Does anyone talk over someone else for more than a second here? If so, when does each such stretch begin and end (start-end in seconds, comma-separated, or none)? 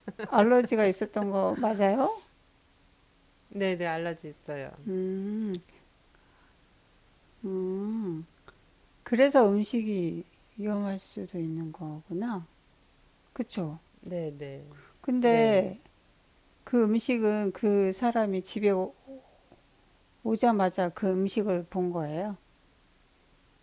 none